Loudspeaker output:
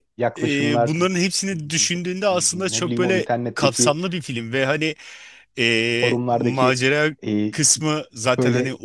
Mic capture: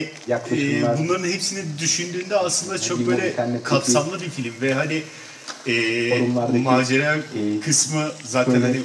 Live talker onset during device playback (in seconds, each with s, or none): none